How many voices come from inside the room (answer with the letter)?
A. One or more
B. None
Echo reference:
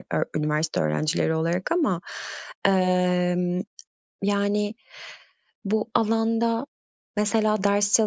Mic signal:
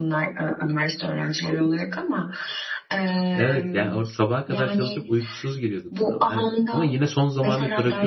A